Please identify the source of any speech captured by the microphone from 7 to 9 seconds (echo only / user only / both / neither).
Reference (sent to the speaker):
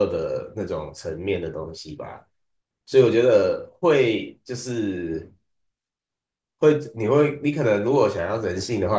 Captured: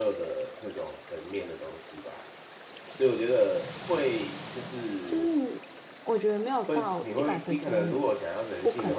both